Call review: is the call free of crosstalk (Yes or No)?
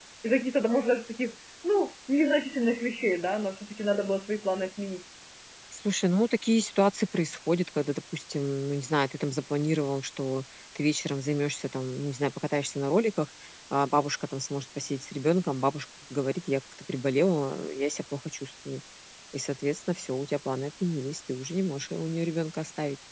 Yes